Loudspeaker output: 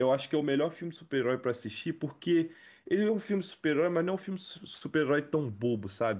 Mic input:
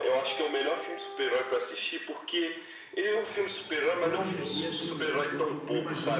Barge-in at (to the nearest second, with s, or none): 4 s